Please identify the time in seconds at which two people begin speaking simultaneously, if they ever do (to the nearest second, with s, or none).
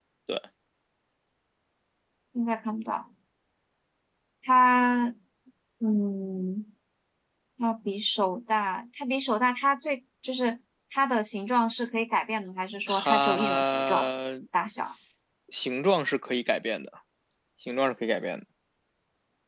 13 s